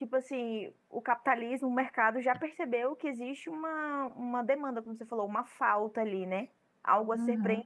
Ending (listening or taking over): listening